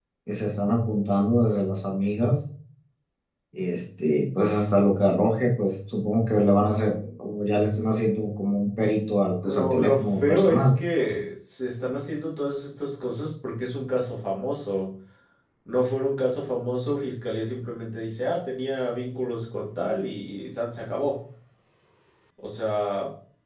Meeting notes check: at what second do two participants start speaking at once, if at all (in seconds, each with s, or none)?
9.4 s